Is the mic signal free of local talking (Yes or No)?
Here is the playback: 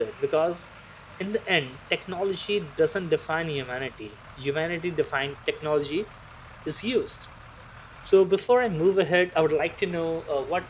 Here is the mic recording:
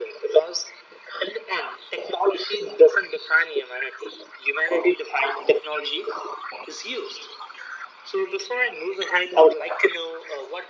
Yes